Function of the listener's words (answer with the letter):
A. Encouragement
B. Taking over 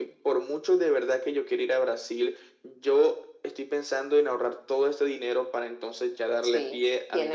B